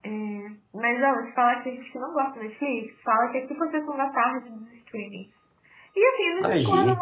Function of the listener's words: listening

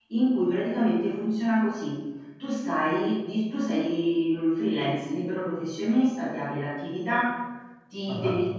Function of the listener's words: listening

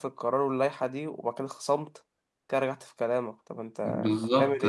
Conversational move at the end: taking over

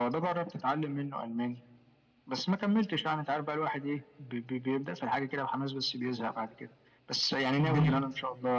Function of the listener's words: listening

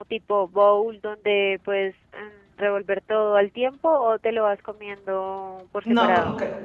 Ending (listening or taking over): taking over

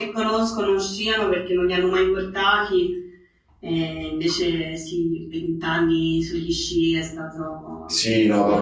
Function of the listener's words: taking over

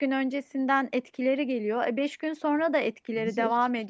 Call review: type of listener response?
listening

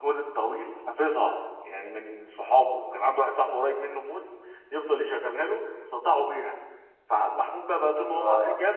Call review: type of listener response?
listening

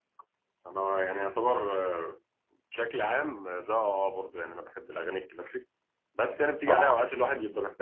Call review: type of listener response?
listening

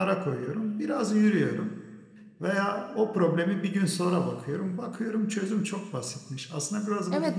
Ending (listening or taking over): taking over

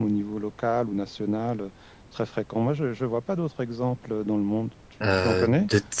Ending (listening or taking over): taking over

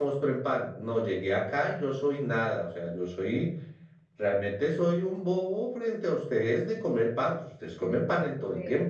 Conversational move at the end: taking over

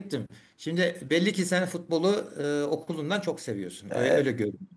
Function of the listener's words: taking over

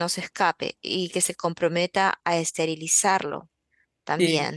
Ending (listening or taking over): taking over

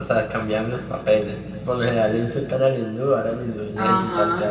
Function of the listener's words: taking over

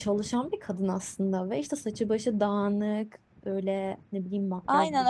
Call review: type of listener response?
taking over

